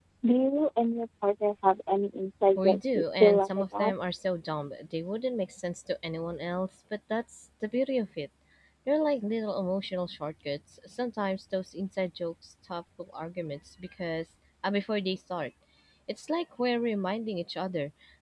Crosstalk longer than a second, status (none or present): present